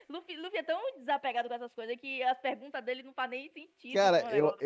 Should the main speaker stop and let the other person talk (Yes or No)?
Yes